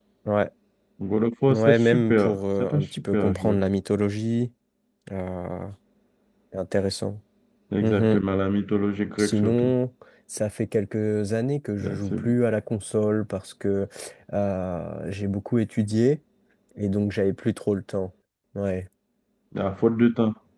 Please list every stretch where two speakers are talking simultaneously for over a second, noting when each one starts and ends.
1.5-3.6

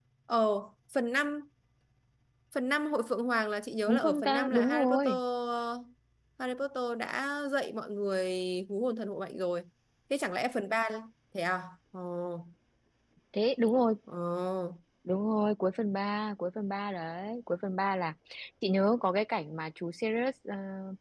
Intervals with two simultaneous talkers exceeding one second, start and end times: 3.9-5.1

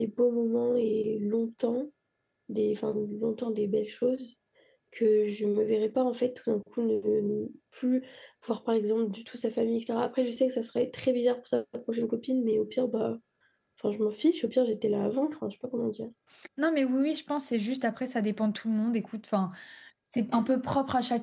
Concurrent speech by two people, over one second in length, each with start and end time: none

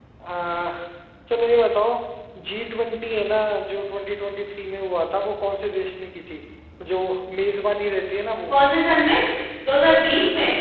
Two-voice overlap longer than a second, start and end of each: none

